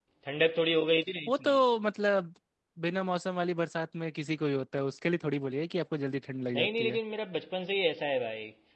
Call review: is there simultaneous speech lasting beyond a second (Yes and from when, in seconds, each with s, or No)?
No